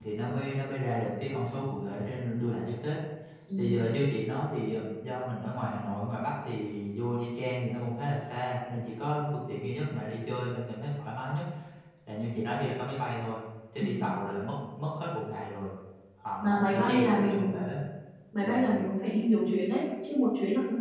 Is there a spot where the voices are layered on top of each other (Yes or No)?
Yes